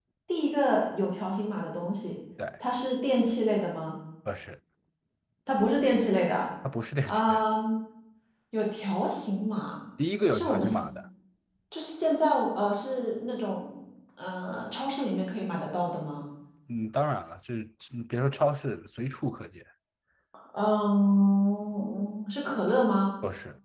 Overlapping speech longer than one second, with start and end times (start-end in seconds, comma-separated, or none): none